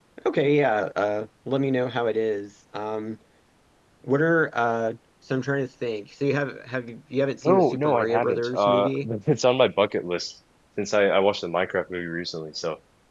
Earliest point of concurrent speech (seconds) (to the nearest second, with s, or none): 7 s